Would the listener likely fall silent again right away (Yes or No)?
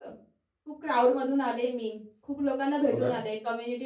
Yes